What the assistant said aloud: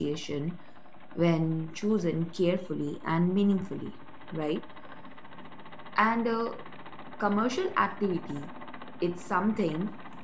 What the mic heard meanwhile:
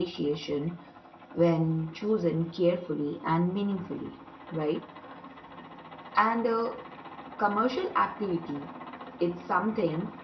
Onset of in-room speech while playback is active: none

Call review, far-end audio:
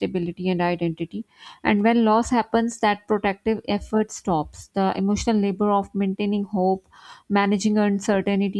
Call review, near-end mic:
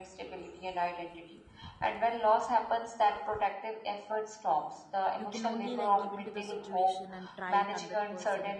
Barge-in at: 5 s

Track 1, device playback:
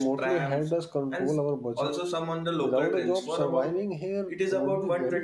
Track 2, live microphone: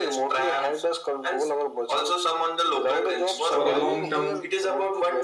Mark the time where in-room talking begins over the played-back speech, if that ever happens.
3 s

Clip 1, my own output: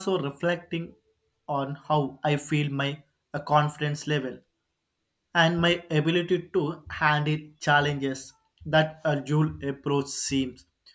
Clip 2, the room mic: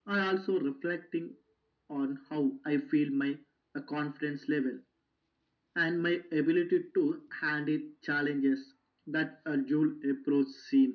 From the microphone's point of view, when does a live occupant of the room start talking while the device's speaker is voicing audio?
none

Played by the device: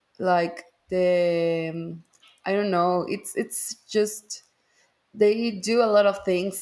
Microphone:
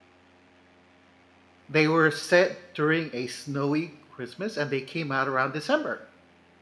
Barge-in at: 2 s

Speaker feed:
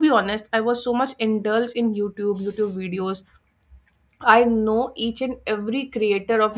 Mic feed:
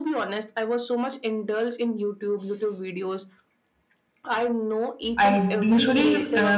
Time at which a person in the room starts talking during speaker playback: 5 s

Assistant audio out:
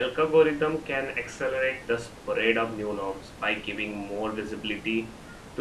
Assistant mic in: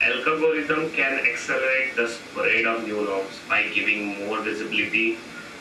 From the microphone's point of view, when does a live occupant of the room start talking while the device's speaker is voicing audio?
none

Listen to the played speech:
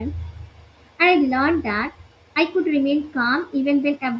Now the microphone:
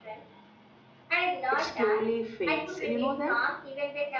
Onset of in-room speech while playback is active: 2 s

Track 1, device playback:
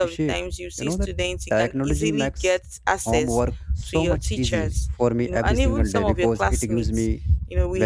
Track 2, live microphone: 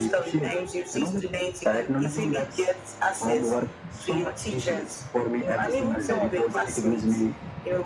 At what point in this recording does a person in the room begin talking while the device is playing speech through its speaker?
none

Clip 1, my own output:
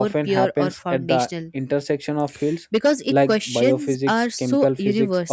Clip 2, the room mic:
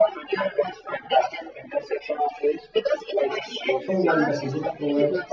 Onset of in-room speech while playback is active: 4 s

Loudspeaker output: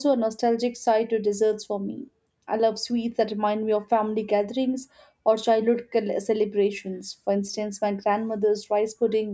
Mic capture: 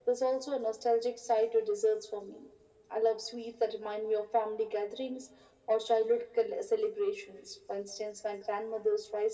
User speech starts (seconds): none

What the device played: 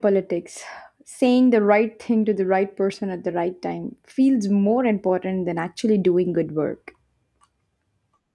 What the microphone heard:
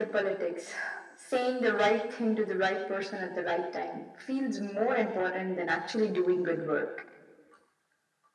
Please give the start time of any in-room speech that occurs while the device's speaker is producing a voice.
none

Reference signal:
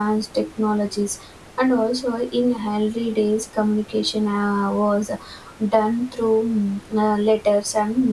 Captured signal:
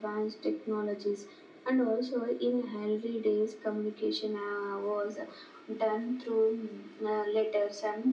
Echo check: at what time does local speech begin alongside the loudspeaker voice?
none

